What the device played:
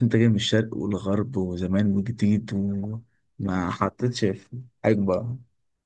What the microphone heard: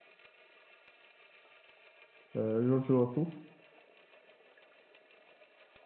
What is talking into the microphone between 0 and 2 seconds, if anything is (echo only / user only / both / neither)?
neither